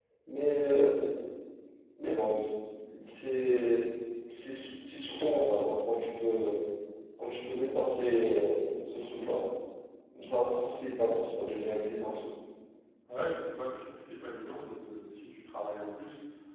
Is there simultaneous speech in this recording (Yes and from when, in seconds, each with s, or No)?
No